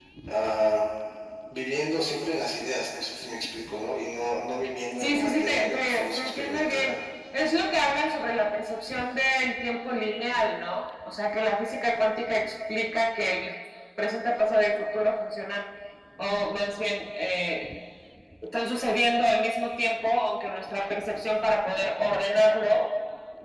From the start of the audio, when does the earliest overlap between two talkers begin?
5.0 s

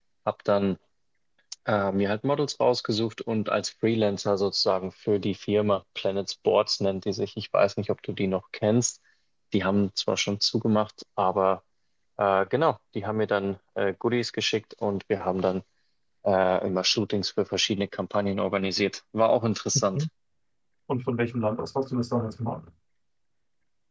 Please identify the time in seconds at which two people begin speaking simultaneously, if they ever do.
none

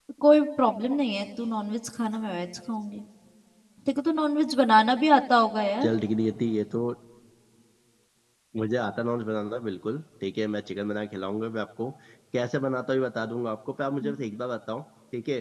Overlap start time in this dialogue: none

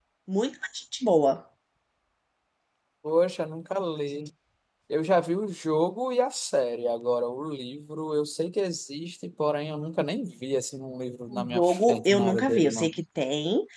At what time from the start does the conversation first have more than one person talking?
11.3 s

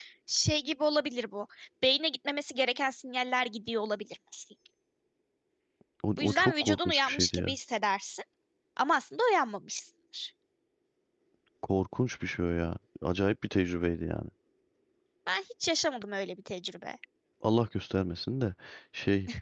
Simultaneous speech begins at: 6.2 s

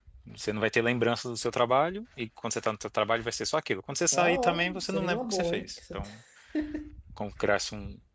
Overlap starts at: 4.1 s

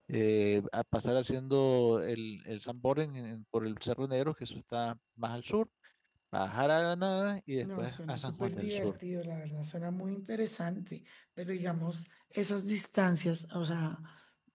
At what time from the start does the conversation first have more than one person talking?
7.6 s

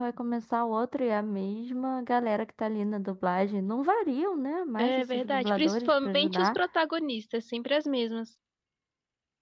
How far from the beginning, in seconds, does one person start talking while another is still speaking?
4.8 s

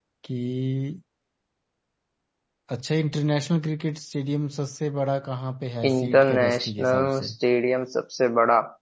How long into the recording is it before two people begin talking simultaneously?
5.8 s

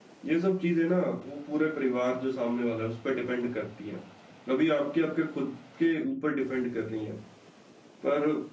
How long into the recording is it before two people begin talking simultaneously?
none

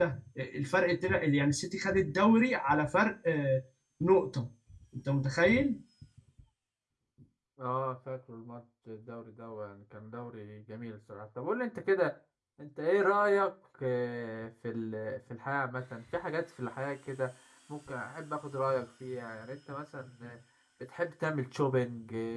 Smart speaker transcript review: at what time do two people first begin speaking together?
none

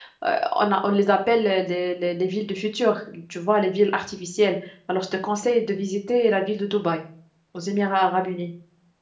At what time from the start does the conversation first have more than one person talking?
none

